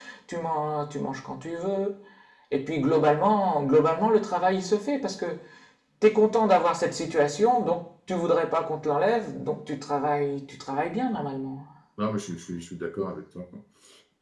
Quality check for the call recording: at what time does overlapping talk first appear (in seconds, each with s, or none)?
none